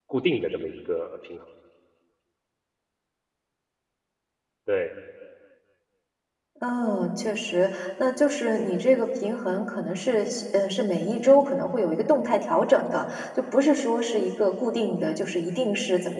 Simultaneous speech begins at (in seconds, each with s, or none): none